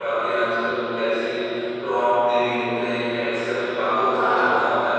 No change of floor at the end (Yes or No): Yes